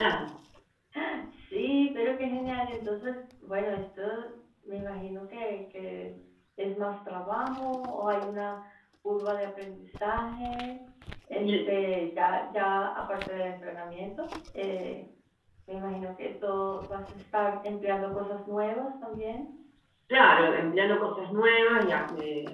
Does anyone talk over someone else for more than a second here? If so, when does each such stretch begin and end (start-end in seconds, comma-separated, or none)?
none